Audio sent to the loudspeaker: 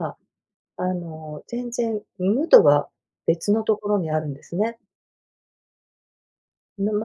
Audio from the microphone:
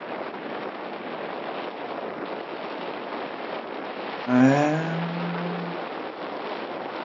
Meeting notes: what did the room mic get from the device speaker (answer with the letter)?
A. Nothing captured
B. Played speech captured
A